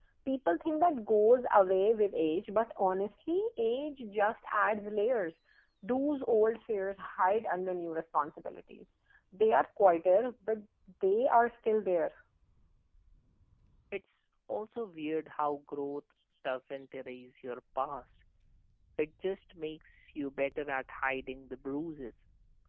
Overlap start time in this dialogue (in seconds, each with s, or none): none